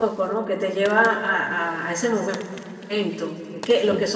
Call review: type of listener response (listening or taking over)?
listening